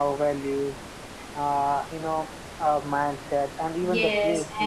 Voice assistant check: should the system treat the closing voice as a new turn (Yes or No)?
Yes